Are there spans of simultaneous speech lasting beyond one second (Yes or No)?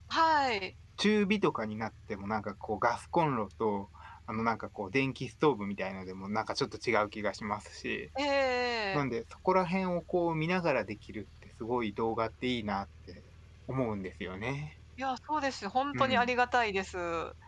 No